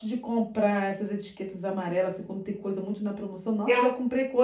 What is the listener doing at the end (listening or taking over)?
listening